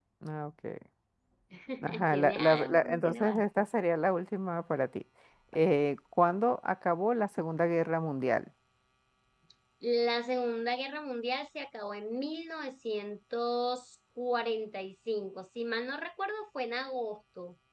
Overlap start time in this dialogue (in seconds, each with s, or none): 2.1 s